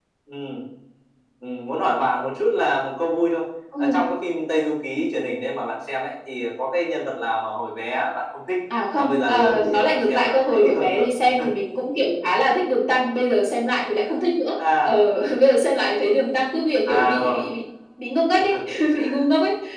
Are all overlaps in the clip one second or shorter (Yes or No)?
No